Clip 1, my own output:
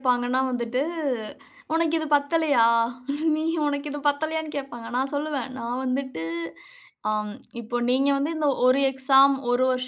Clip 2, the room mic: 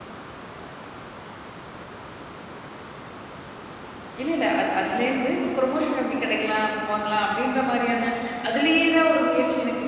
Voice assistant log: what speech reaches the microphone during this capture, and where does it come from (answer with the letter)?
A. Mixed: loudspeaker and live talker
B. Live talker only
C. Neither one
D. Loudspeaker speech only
B